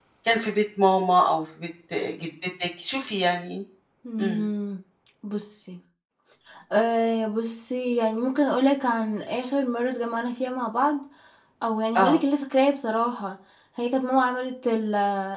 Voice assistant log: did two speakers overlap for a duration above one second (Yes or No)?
No